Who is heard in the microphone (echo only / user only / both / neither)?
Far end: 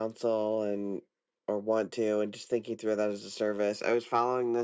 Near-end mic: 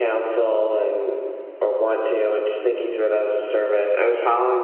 echo only